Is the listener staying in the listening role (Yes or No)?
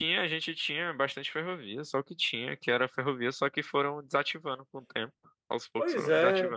No